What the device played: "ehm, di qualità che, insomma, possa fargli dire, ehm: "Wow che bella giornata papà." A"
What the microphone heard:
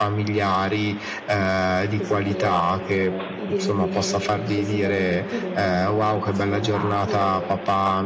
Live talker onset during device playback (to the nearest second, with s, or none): 2 s